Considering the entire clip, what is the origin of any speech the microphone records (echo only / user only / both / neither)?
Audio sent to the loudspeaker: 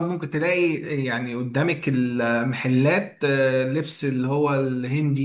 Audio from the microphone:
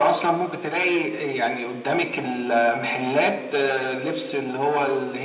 echo only